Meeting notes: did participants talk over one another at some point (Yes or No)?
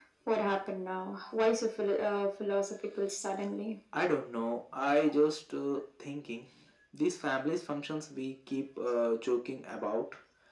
No